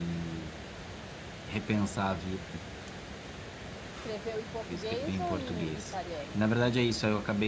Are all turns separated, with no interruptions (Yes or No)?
No